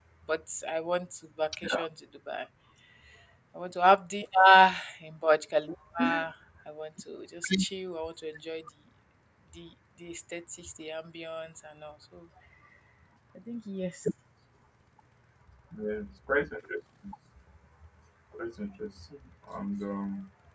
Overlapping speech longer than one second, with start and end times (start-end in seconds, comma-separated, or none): none